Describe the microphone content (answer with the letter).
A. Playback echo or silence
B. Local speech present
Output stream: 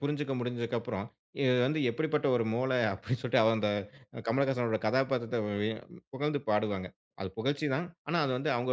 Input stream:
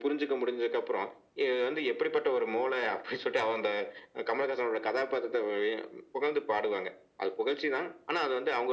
A